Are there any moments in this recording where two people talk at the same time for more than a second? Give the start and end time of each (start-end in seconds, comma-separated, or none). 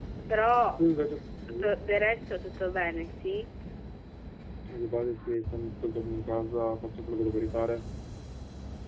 none